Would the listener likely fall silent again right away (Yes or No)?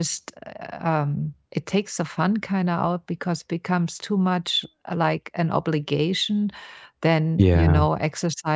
Yes